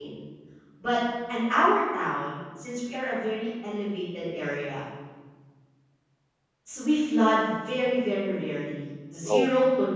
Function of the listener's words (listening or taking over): listening